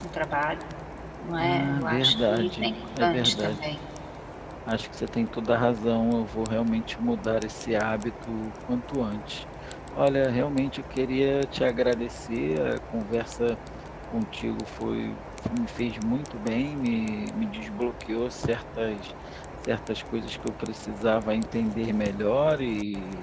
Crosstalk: present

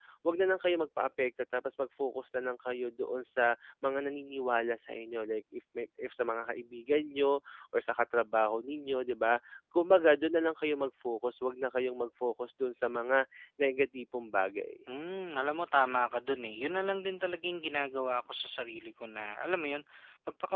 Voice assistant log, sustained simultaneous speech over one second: none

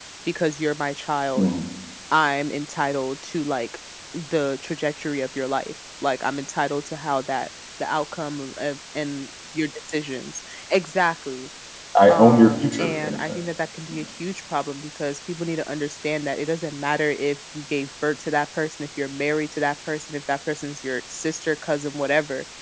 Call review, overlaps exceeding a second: present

